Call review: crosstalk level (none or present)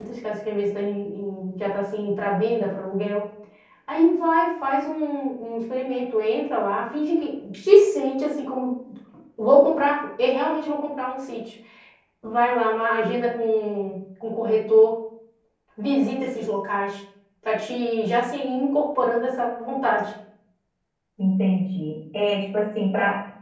none